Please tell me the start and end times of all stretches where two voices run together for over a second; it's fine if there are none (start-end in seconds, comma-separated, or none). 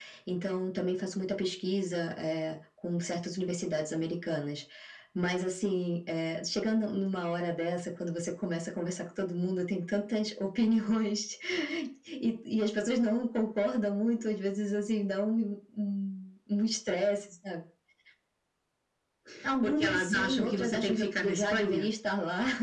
19.6-21.9